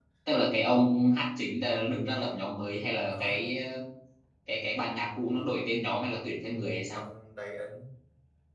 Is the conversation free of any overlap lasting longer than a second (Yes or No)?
Yes